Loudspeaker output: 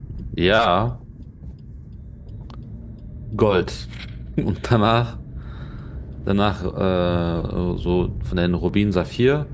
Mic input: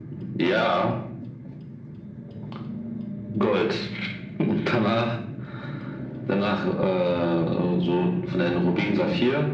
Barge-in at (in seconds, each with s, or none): none